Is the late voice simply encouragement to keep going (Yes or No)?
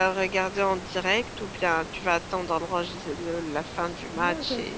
No